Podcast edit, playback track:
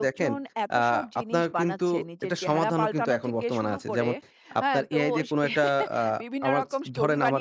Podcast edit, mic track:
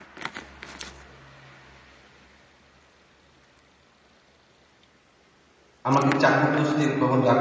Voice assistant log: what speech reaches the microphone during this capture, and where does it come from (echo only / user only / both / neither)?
user only